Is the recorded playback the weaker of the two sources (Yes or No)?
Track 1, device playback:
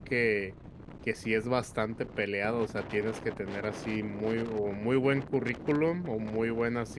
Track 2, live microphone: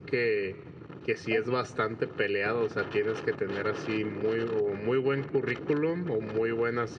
No